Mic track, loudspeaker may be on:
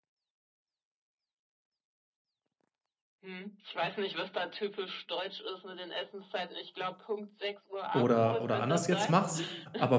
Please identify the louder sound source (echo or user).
user